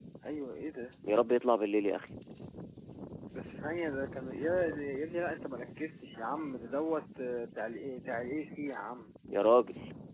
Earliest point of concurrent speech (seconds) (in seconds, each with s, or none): none